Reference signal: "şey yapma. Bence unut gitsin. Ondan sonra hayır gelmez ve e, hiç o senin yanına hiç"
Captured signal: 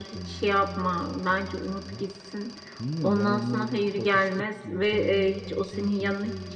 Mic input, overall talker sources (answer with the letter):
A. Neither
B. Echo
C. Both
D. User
C